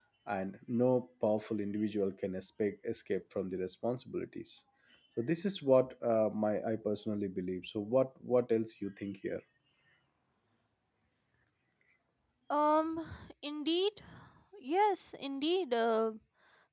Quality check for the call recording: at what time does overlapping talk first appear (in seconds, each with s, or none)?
none